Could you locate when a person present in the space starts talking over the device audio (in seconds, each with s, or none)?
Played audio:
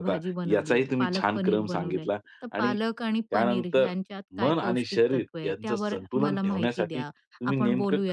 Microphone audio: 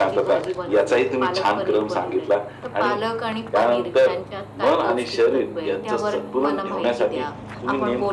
none